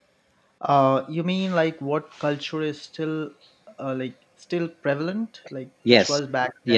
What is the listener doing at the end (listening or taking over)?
taking over